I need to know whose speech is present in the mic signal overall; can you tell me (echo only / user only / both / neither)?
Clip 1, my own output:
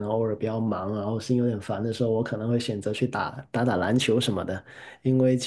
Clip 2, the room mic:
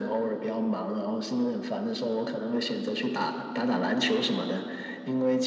echo only